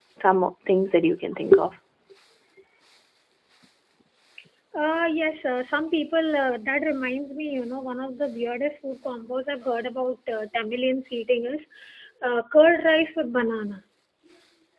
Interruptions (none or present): none